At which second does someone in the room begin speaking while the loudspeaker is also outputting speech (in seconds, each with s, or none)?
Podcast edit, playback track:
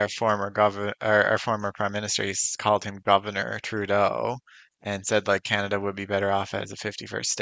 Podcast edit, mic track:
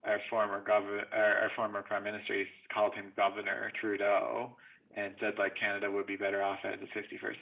none